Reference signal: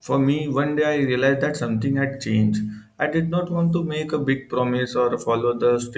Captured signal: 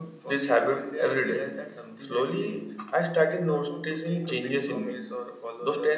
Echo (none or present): present